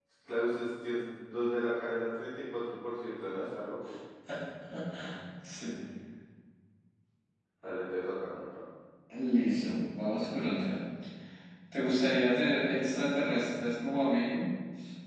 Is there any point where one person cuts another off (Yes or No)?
No